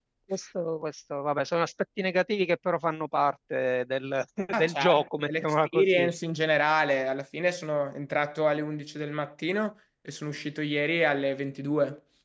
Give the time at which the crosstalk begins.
4.5 s

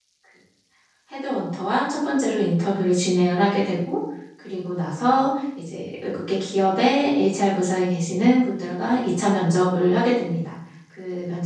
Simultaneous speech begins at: none

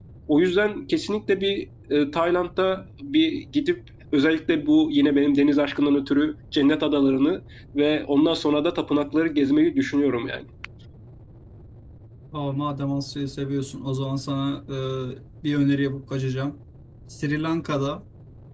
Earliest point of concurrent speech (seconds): none

